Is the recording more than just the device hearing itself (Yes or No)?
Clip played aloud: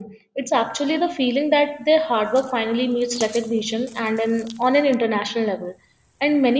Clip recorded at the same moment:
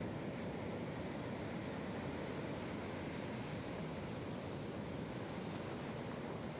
No